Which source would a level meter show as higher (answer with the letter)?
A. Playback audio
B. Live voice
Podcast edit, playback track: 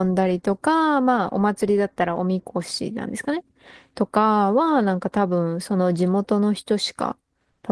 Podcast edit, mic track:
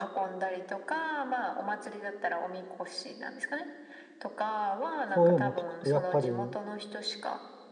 B